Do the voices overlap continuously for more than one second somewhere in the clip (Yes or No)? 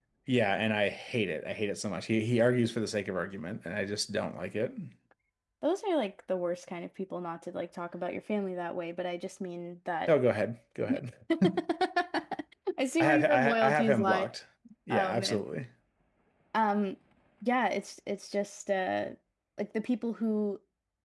Yes